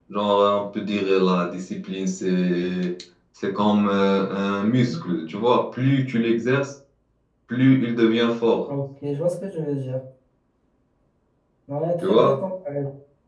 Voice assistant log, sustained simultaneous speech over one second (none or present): none